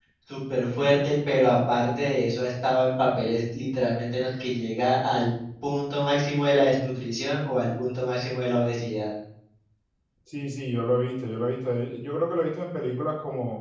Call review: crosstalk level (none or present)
none